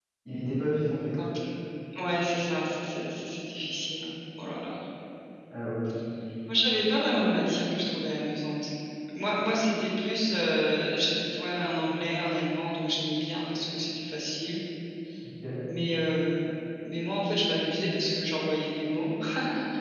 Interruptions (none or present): none